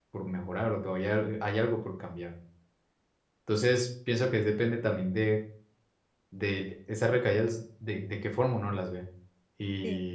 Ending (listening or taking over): listening